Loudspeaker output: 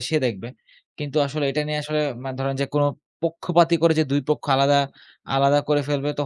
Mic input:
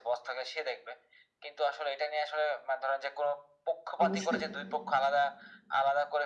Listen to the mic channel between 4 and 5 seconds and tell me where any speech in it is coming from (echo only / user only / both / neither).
both